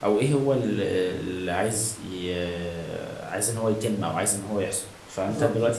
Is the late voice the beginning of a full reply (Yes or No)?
No